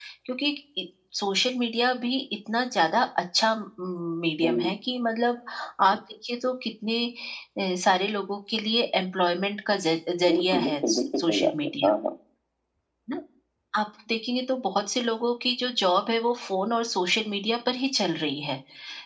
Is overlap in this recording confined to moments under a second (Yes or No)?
No